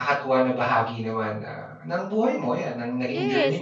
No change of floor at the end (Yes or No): No